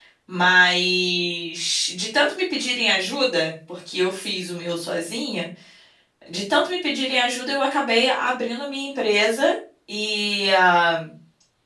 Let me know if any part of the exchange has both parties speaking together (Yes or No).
No